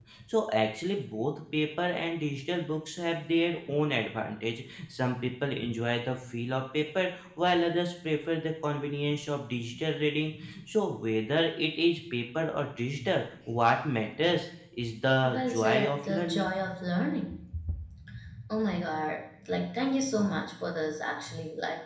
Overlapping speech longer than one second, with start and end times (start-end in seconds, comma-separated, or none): 15.3-16.5